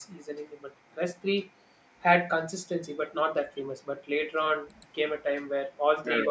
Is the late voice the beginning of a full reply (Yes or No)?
Yes